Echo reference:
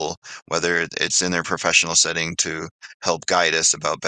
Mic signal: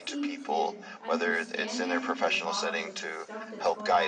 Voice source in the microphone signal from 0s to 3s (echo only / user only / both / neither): both